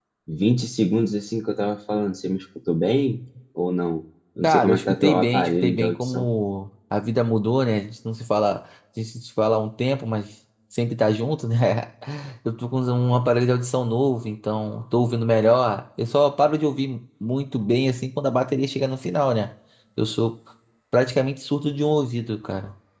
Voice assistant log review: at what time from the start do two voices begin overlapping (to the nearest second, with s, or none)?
4 s